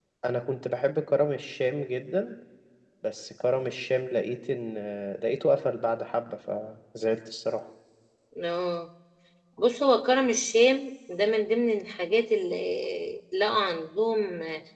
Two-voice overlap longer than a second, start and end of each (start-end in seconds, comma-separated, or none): none